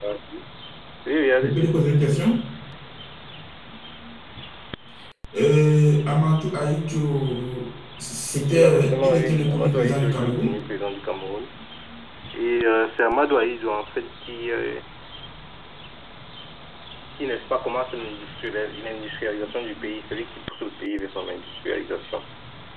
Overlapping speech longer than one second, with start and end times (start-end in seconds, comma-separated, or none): 8.5-10.6